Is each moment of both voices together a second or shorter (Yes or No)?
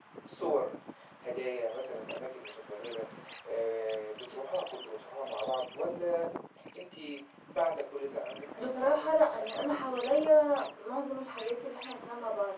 No